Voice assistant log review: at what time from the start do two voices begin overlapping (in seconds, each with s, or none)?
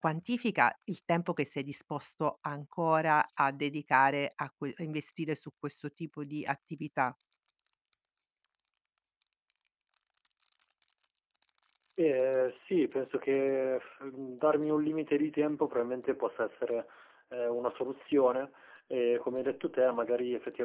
none